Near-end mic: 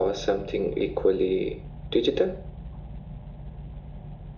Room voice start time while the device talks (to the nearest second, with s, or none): none